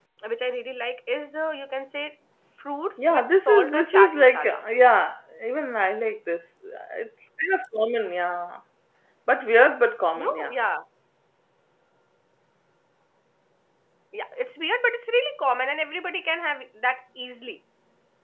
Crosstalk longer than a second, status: present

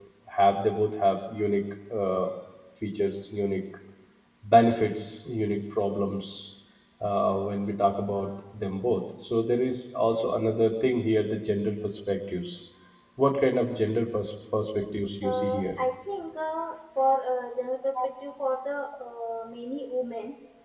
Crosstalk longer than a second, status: none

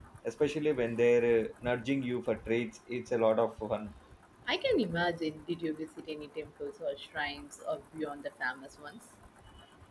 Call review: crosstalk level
none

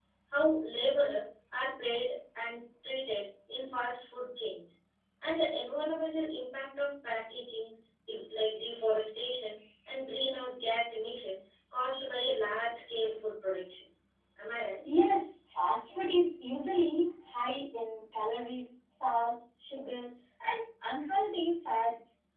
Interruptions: none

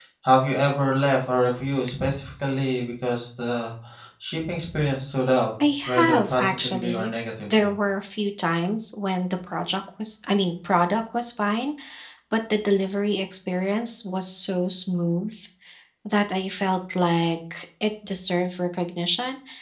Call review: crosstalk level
present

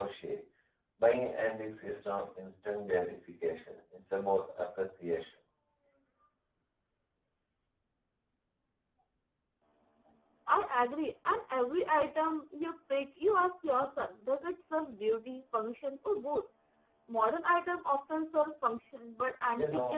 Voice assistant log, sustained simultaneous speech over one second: none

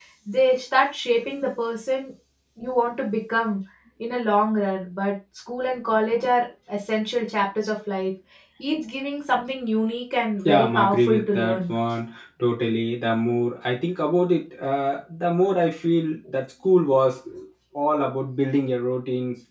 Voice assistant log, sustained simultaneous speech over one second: present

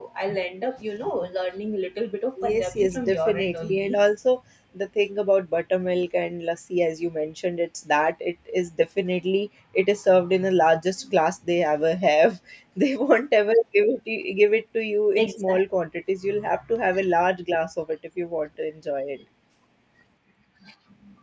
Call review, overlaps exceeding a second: present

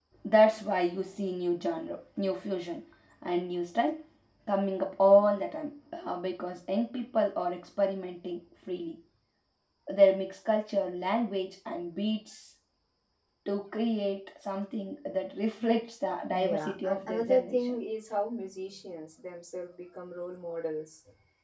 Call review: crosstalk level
present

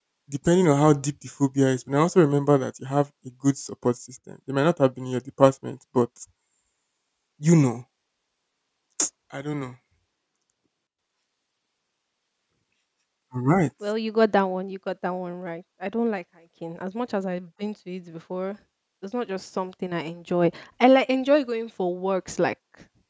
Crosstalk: none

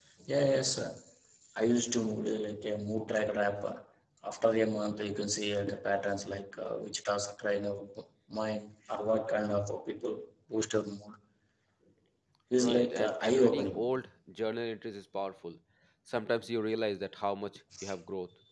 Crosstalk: present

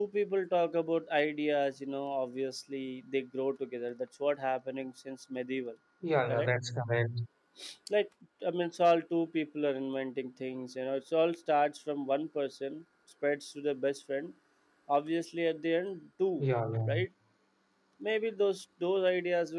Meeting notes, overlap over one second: none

